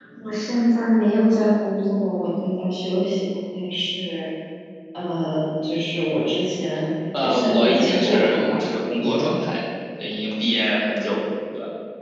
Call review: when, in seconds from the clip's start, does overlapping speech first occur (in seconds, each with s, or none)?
7.1 s